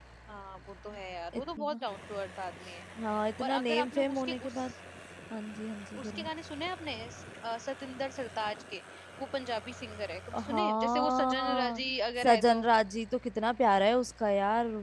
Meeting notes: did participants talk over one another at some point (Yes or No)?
Yes